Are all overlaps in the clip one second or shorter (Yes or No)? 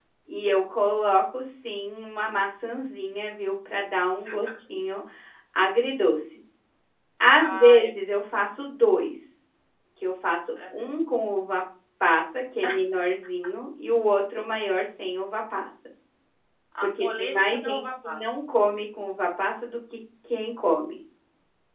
No